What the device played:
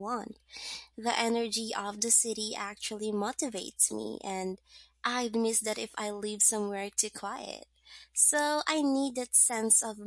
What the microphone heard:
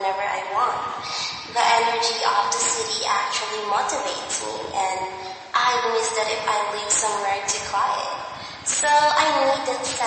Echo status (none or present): present